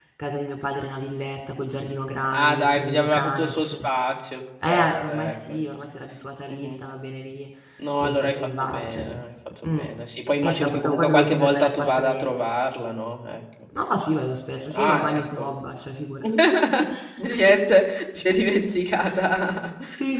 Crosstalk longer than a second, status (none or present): present